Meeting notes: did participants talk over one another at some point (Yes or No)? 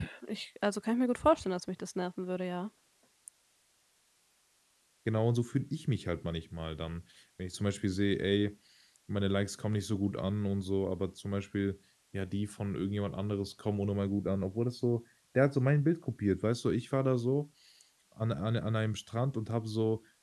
No